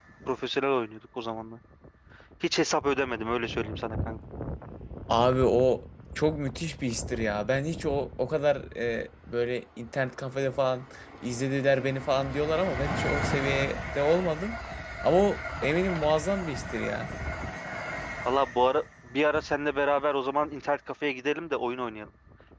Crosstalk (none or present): none